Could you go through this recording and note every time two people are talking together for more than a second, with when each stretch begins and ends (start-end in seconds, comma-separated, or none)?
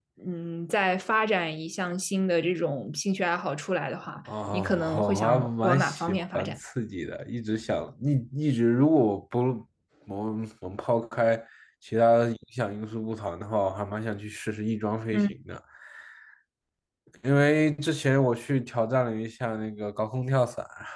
4.5-6.6